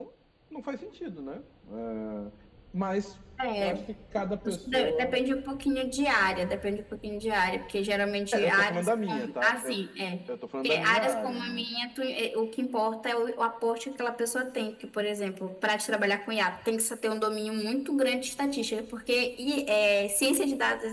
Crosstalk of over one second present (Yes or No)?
Yes